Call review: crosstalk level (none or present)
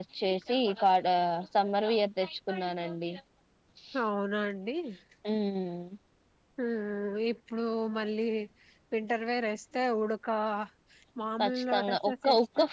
present